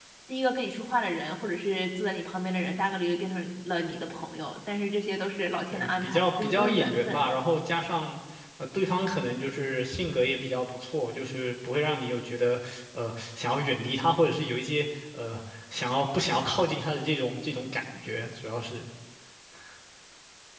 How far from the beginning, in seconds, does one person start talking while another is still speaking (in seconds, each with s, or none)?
5.7 s